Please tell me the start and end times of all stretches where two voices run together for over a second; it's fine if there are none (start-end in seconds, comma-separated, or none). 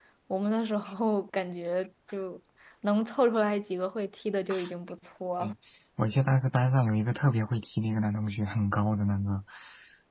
none